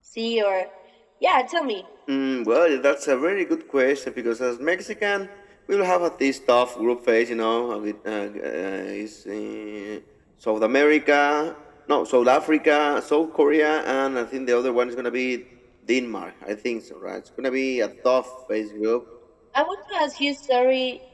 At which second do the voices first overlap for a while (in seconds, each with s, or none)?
none